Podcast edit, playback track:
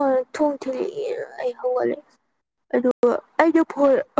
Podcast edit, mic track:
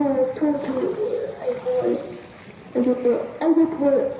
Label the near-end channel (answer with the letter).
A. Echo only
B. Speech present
A